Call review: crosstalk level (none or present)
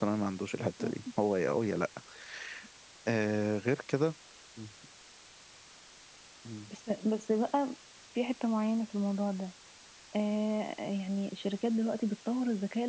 none